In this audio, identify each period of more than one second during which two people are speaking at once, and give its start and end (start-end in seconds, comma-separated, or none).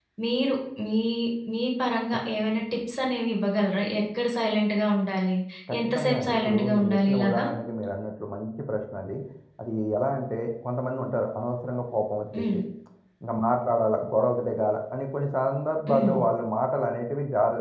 5.9-7.4